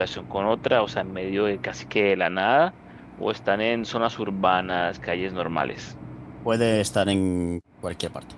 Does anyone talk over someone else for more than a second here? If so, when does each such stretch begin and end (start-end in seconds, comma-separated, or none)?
none